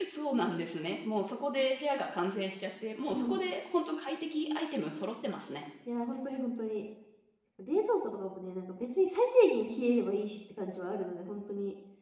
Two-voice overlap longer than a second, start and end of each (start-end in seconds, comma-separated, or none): none